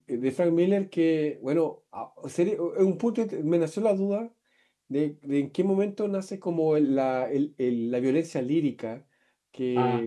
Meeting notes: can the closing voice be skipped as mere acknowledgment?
Yes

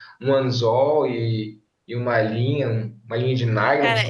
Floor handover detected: Yes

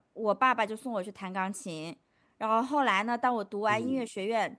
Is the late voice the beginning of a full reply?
No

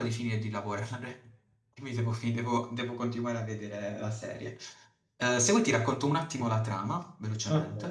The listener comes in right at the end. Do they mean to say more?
Yes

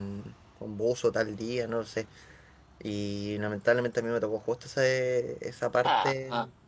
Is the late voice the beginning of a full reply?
No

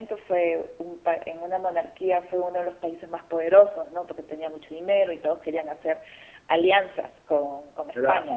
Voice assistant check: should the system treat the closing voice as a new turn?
Yes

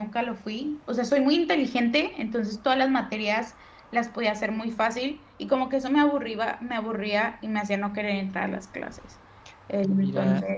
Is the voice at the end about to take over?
Yes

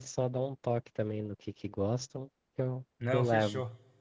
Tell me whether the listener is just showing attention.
No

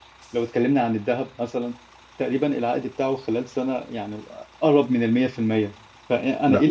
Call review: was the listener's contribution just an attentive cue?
Yes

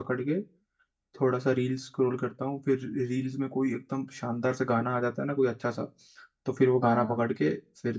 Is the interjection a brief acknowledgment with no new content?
Yes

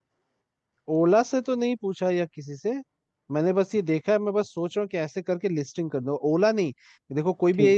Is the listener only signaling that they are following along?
Yes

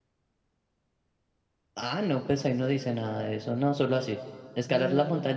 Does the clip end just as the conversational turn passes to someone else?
No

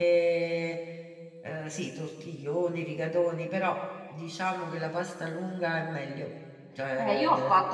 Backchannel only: No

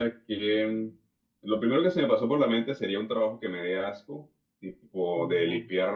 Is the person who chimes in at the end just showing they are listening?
Yes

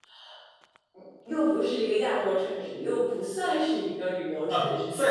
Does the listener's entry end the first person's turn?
Yes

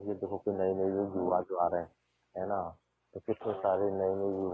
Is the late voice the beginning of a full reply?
No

